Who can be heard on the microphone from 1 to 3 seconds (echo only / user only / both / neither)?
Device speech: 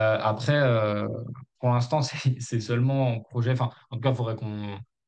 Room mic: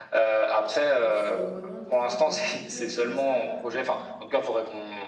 both